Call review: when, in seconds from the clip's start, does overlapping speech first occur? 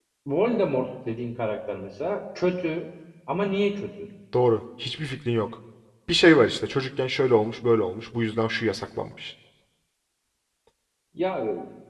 none

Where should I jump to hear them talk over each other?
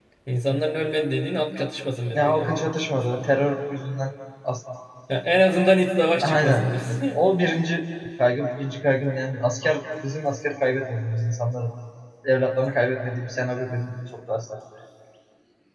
2.1 s

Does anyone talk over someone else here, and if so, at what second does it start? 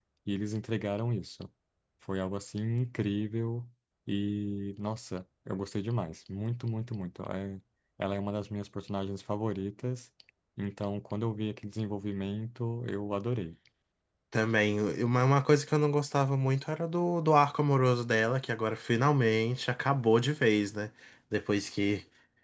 none

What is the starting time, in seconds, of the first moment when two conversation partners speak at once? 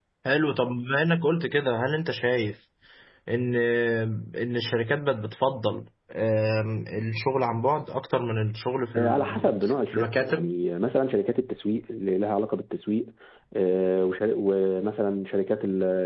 9.0 s

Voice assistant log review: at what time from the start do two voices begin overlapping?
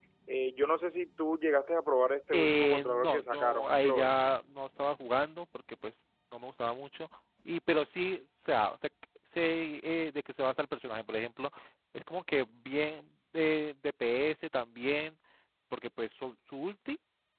2.3 s

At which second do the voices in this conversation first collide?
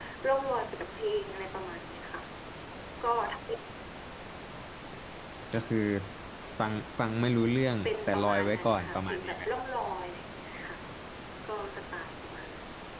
7.8 s

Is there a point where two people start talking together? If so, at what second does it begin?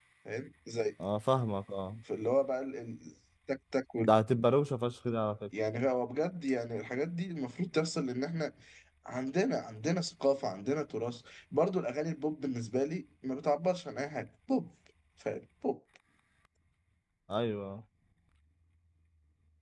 none

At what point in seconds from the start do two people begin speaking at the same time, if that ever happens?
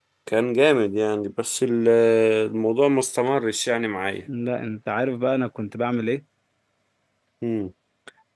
none

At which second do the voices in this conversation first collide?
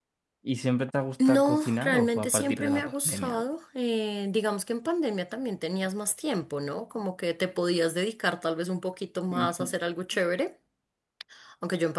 1.2 s

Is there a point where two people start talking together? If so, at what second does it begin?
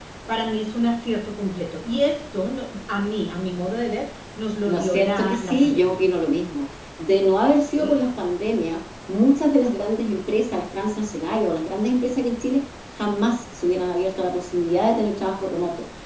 4.7 s

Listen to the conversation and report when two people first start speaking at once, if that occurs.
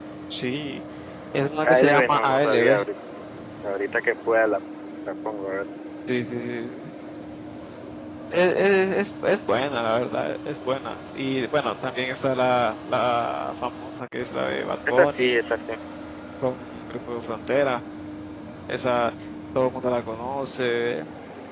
1.6 s

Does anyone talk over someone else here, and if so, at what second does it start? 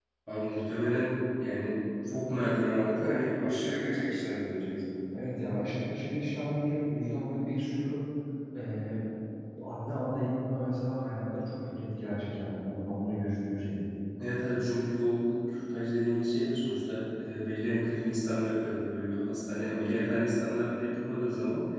none

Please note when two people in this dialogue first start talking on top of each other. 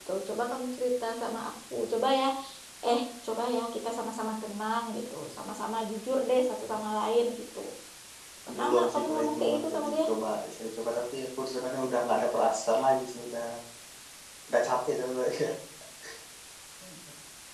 8.6 s

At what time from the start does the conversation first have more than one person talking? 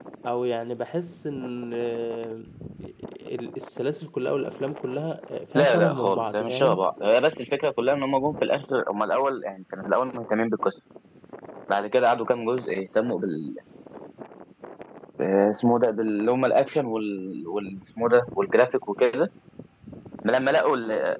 5.5 s

